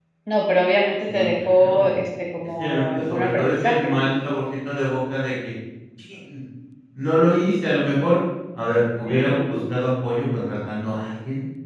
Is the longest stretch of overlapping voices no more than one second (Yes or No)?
No